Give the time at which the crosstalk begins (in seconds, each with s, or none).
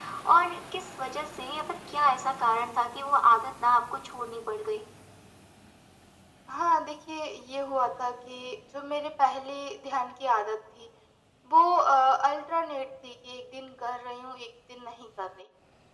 none